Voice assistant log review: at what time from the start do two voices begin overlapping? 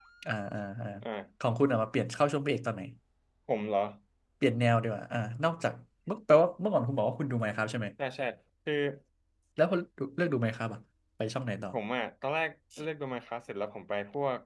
none

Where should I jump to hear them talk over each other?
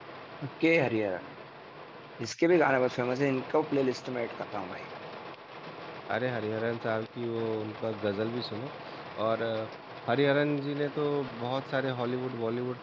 none

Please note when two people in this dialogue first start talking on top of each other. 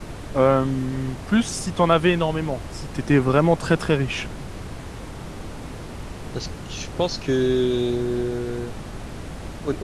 none

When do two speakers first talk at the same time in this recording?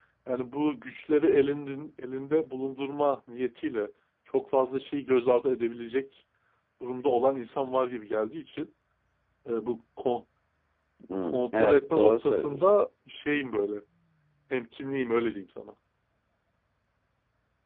11.1 s

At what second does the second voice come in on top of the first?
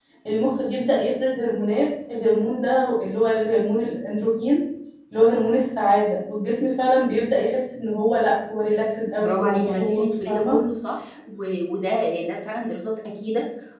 9.0 s

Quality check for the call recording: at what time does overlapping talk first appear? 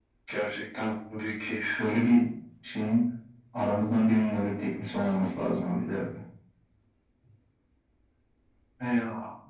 none

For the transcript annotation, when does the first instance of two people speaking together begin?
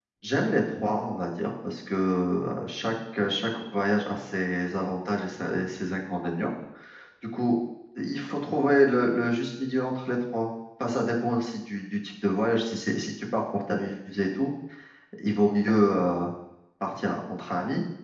none

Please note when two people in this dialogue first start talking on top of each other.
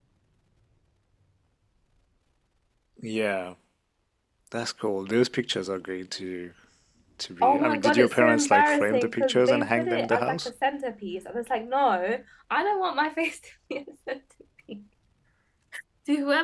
7.4 s

